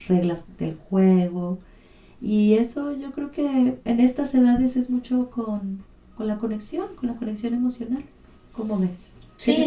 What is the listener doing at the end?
taking over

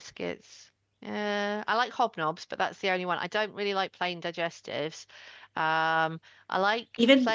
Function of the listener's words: listening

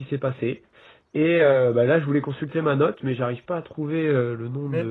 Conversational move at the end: taking over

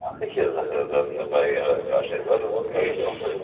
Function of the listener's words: listening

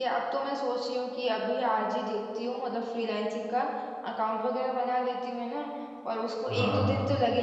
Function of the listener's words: listening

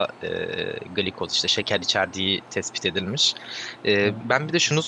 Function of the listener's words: listening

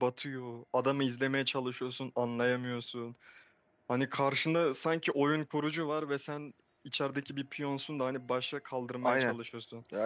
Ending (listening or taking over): taking over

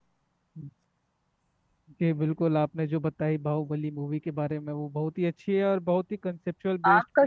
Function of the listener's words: taking over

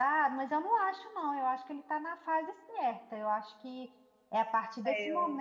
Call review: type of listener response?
listening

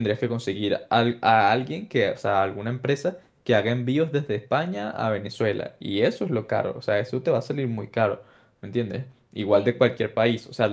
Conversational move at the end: listening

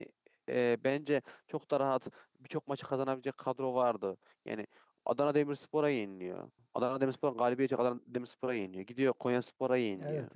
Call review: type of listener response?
listening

